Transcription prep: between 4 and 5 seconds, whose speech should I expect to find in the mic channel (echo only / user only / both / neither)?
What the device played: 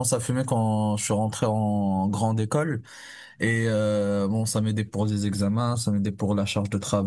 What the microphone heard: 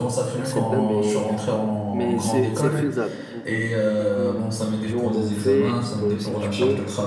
both